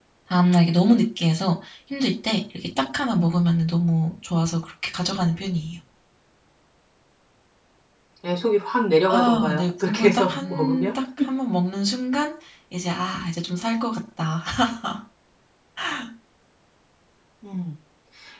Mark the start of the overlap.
9.1 s

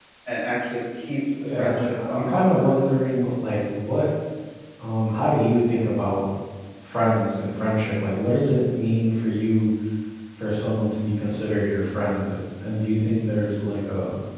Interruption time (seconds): 1.3 s

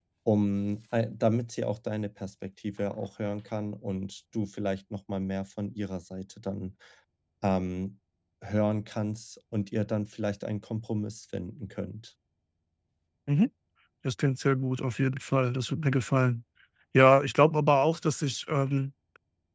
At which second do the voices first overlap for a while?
none

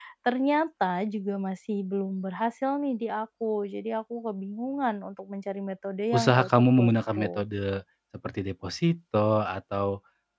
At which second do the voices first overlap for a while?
6.1 s

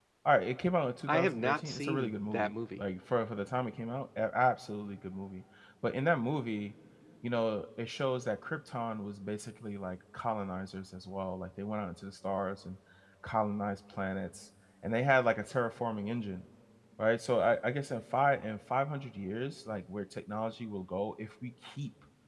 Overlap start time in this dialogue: 1.1 s

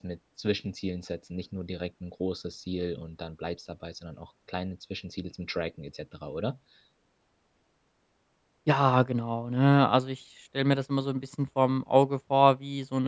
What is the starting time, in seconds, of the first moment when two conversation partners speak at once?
none

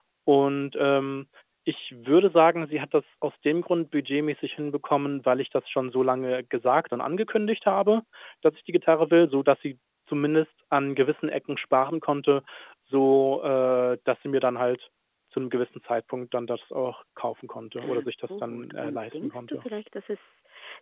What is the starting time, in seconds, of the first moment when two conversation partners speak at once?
17.8 s

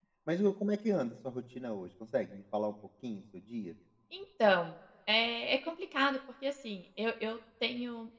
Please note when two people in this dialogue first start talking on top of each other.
none

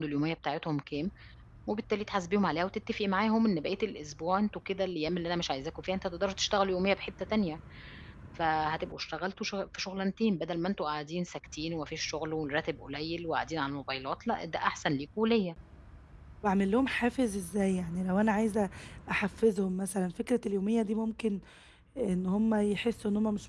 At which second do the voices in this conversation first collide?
none

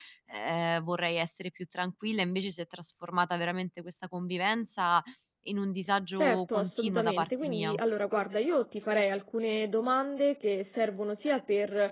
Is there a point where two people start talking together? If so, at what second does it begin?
6.2 s

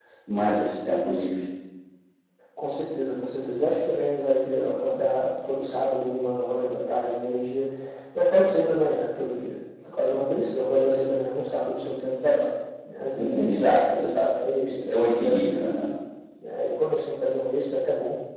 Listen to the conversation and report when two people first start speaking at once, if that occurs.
13.2 s

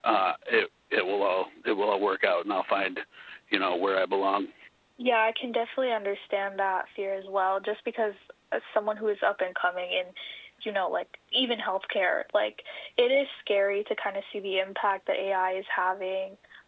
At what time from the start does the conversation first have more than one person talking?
none

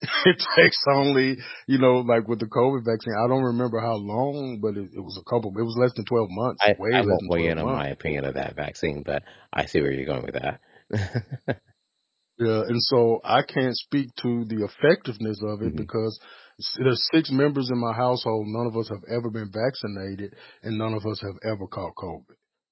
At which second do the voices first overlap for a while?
6.6 s

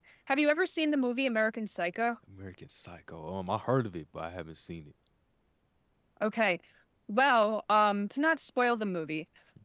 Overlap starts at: none

